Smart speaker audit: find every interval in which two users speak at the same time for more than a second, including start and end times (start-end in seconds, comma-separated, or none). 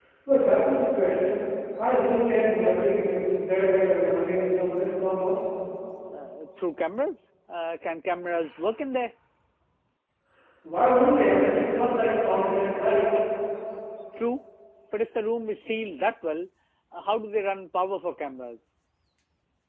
none